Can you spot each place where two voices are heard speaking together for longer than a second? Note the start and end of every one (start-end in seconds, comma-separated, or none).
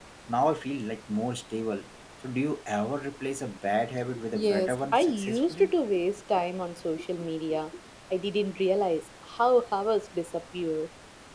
4.3-5.7